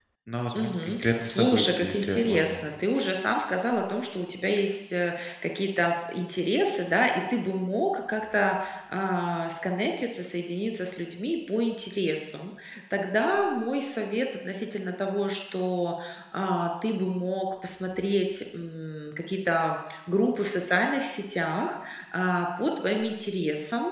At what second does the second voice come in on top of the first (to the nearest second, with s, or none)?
1 s